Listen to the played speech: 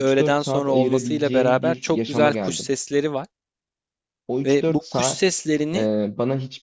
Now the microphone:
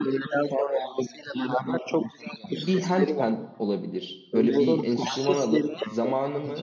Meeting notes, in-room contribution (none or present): present